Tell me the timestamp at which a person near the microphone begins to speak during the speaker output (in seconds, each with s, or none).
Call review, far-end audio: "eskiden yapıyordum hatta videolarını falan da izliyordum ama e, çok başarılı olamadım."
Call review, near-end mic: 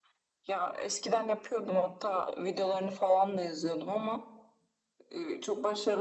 none